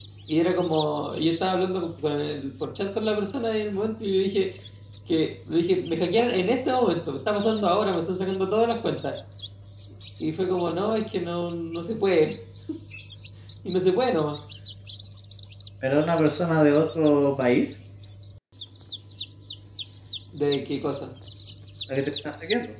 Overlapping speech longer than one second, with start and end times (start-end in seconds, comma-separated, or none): none